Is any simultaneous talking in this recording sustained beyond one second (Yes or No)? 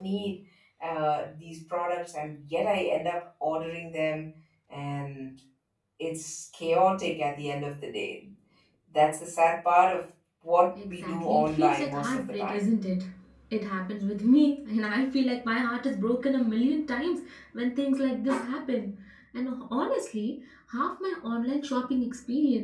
Yes